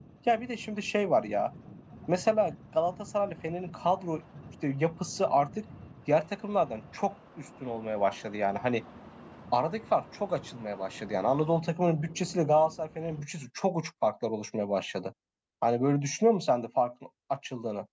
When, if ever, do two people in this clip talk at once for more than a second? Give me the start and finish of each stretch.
none

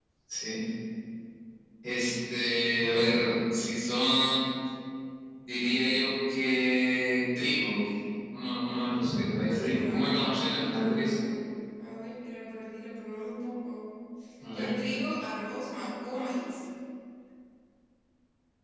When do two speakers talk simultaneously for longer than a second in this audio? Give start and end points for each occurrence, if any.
9.5-11.2

